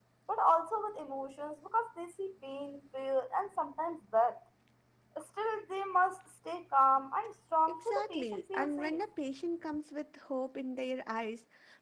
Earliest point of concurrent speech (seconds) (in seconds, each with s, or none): 7.7 s